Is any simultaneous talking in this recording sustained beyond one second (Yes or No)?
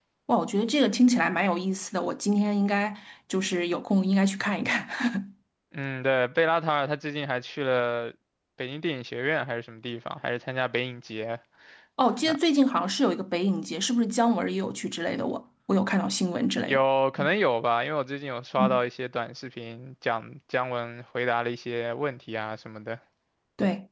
No